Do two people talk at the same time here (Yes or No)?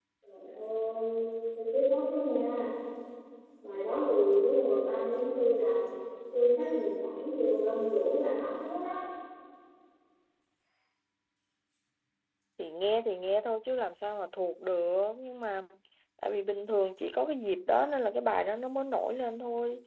No